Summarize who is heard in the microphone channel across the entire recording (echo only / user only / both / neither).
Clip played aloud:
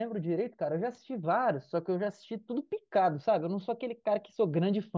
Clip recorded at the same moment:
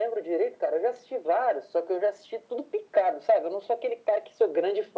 echo only